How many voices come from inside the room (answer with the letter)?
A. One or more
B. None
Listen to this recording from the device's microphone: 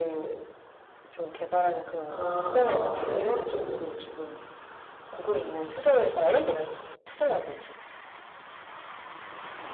A